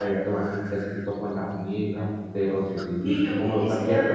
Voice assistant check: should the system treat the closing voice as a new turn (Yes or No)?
Yes